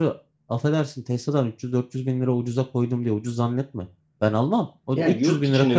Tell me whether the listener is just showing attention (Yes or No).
No